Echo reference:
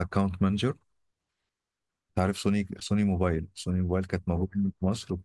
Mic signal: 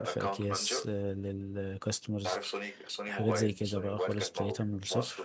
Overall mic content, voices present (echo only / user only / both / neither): both